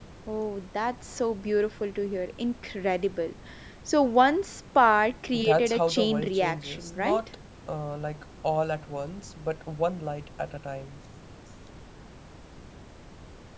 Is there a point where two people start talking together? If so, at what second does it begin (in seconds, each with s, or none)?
5.3 s